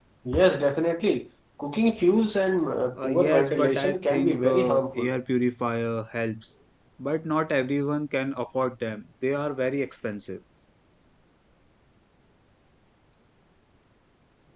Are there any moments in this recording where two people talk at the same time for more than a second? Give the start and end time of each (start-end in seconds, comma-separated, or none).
3.0-5.1